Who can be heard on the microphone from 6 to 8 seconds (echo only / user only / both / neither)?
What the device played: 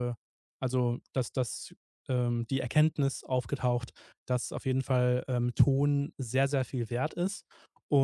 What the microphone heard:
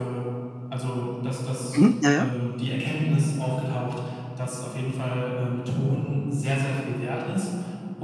echo only